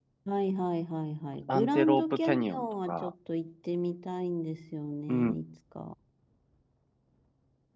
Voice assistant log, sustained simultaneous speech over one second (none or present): present